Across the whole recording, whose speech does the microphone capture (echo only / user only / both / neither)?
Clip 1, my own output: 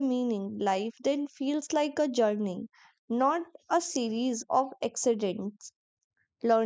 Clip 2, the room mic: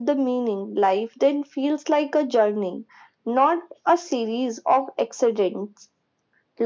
echo only